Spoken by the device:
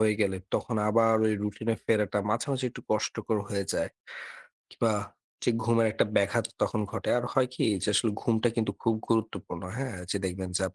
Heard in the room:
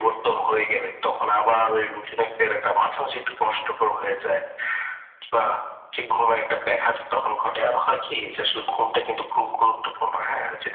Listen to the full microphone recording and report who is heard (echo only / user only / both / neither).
echo only